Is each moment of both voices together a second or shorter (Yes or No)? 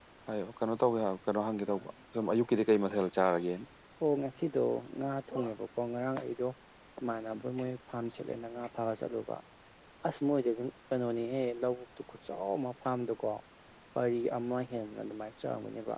Yes